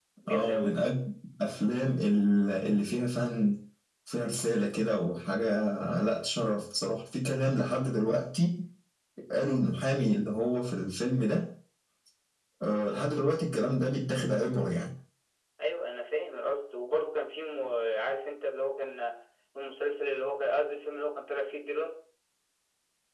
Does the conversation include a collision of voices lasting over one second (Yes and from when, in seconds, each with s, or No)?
No